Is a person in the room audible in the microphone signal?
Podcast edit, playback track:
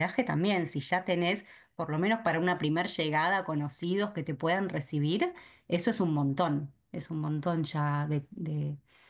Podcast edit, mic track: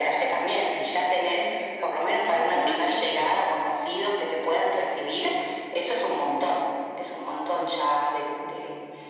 Yes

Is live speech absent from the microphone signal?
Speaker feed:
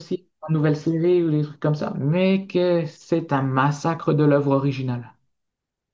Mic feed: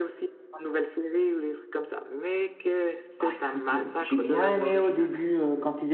No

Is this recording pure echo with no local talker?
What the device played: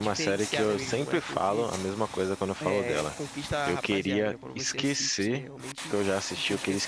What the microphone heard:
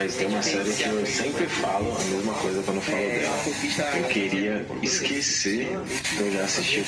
No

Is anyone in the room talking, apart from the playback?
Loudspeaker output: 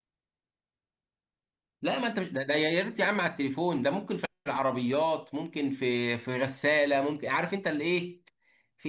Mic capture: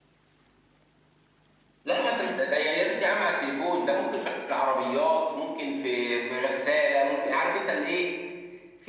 No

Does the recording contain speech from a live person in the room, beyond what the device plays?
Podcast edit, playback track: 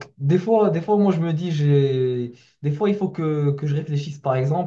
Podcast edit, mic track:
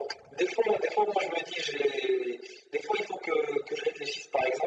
No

